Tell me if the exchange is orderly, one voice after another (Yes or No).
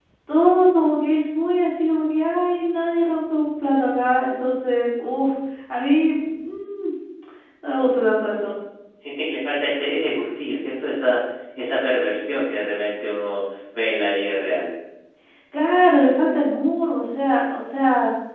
Yes